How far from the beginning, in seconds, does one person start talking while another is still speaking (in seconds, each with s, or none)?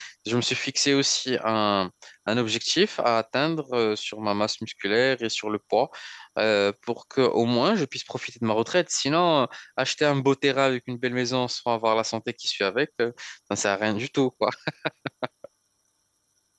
none